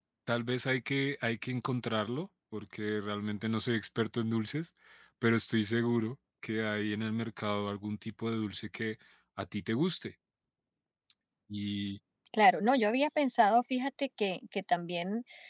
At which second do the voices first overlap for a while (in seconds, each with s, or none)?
none